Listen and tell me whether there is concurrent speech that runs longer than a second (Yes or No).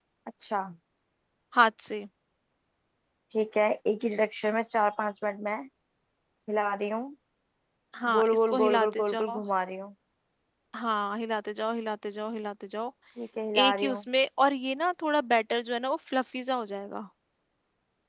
Yes